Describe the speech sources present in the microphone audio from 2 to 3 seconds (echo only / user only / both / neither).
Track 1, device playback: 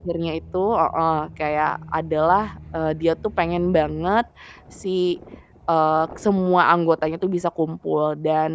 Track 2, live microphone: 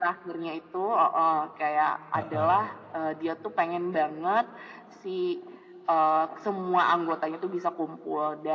both